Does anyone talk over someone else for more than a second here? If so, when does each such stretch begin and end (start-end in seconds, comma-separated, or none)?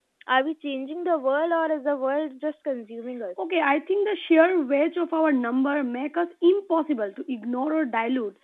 none